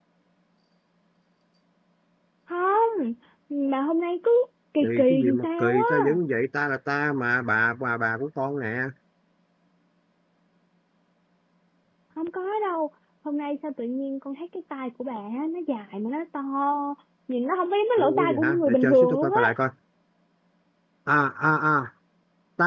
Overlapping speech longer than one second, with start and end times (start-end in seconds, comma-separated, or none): 4.8-6.2, 18.0-19.5